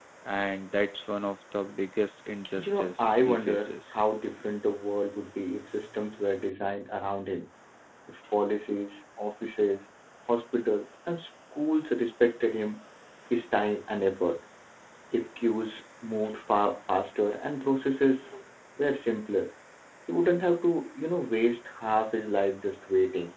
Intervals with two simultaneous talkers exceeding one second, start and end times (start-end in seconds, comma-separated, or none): 2.6-4.0